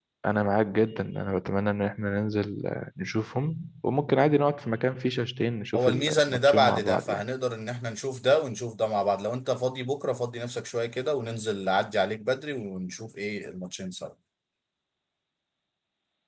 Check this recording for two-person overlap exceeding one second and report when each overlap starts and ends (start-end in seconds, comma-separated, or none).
5.8-7.2